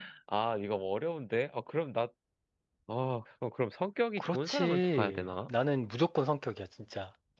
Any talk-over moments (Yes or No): Yes